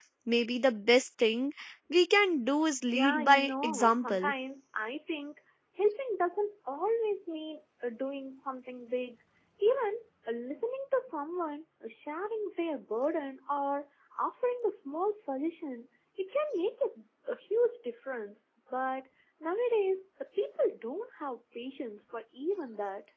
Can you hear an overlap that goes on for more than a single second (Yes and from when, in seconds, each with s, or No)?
Yes, from 2.9 s